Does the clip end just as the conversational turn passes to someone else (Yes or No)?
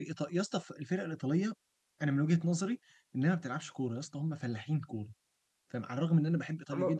Yes